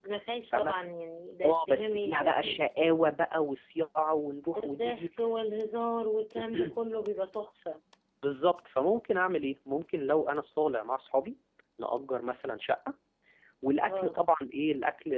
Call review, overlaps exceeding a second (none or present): present